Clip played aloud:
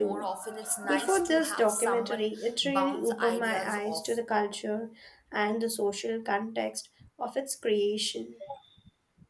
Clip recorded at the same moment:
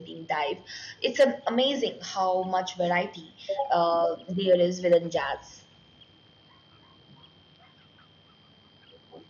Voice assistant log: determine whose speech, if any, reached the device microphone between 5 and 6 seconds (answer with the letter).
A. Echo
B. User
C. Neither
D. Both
B